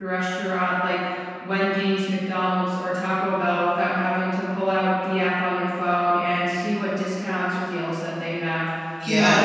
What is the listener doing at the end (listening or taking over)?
listening